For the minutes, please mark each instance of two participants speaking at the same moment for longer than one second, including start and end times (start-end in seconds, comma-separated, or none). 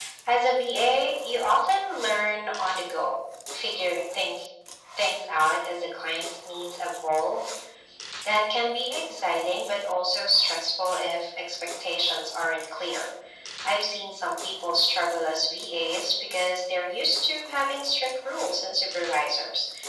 none